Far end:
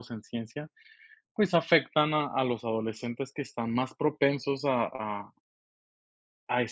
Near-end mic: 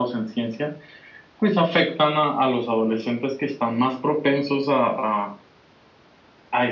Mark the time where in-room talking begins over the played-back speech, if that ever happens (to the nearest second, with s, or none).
none